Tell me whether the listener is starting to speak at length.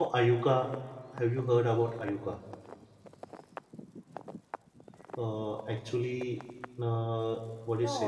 Yes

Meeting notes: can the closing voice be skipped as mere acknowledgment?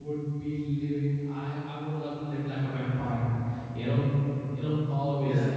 Yes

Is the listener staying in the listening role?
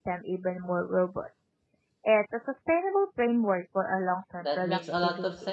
No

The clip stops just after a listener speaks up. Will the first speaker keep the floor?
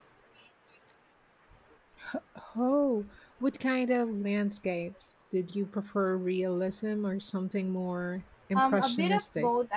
No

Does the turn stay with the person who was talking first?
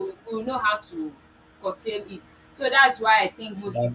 Yes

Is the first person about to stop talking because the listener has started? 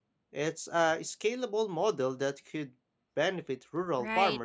Yes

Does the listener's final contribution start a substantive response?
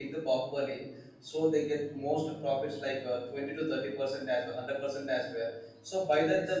No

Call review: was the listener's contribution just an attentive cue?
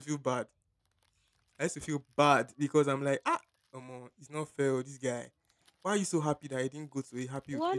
No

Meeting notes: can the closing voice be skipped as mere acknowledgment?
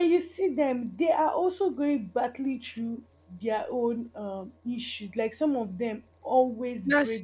Yes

